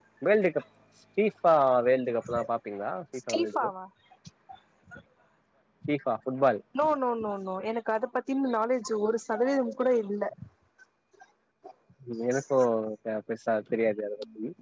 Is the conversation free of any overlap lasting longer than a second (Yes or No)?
Yes